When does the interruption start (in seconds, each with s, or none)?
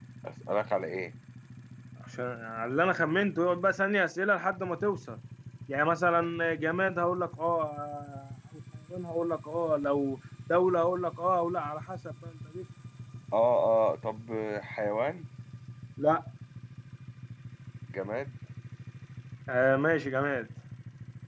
none